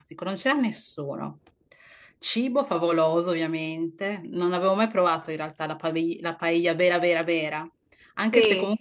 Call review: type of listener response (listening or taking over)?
listening